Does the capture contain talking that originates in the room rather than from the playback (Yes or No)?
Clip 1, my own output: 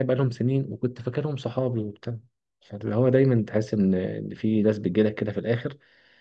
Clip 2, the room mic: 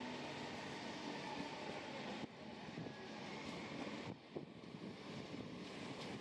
No